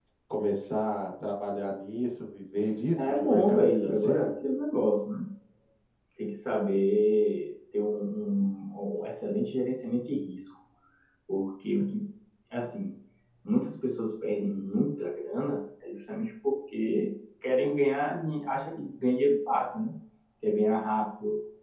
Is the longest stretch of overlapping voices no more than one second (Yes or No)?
No